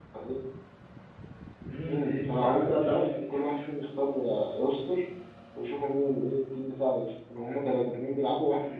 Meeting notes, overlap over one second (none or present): present